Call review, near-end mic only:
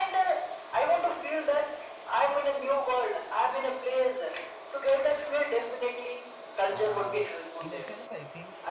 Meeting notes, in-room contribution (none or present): present